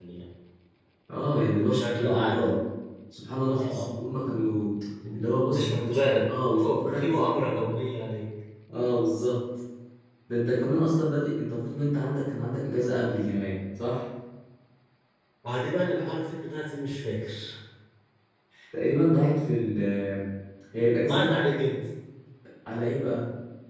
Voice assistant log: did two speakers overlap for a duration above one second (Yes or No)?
Yes